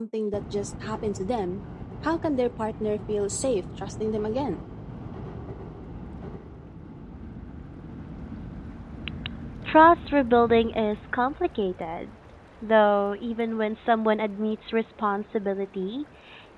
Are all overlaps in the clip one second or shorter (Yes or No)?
Yes